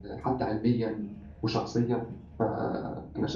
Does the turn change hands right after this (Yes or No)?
Yes